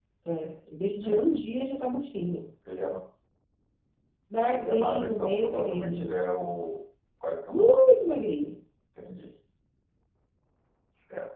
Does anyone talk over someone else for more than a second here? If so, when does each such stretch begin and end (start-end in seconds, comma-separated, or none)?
4.5-6.1